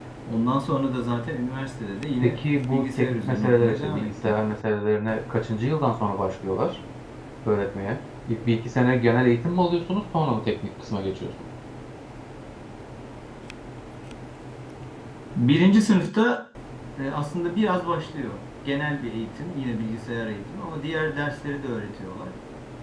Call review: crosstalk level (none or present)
present